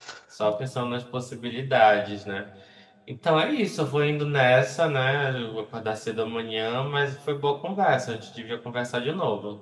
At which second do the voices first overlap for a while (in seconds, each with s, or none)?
none